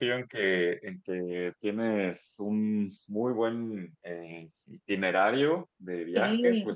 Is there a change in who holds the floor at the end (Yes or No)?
No